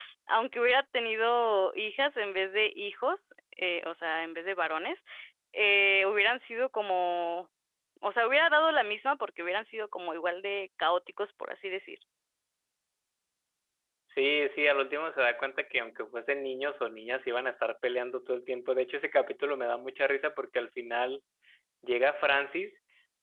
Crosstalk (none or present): none